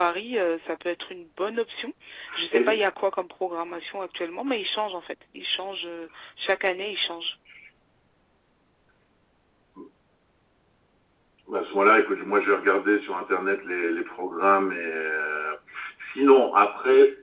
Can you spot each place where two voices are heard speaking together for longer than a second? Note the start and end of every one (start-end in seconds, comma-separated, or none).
none